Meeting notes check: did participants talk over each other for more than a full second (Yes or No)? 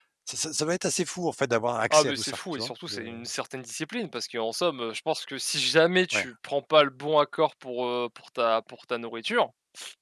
Yes